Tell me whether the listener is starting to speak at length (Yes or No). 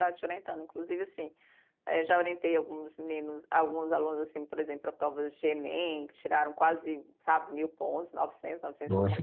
Yes